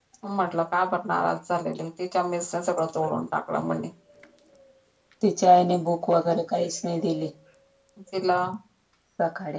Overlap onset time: none

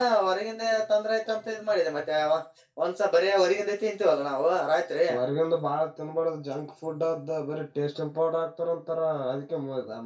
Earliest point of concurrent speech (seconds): none

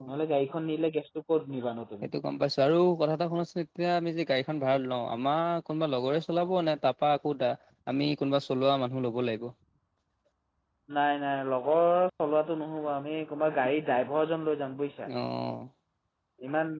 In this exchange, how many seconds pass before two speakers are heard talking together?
none

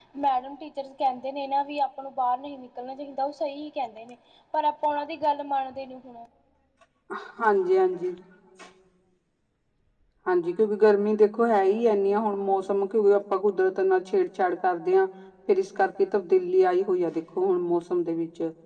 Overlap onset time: none

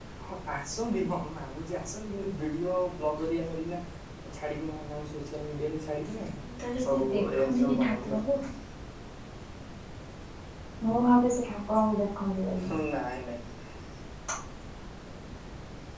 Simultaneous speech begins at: 6.9 s

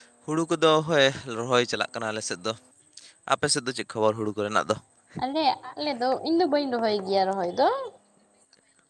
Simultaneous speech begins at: none

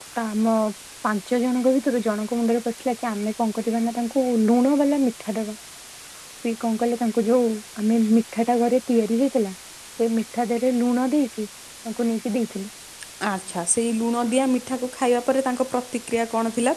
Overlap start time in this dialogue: none

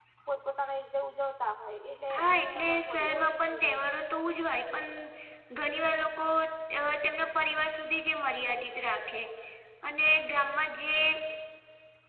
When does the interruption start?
2.1 s

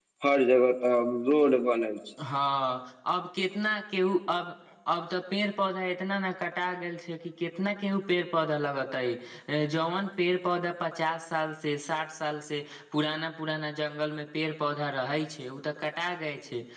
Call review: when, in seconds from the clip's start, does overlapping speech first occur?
none

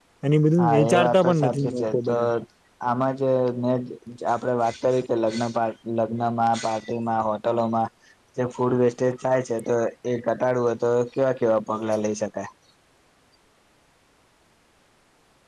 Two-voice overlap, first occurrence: 0.6 s

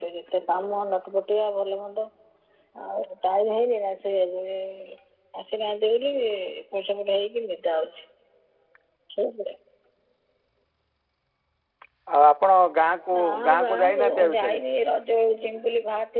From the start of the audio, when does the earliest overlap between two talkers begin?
13.1 s

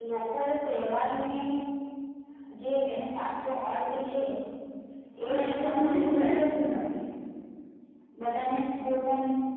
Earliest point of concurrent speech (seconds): 5.2 s

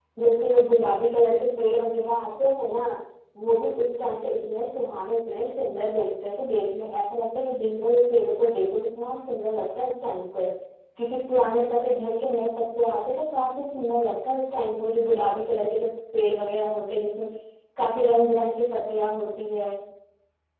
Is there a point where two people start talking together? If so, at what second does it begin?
none

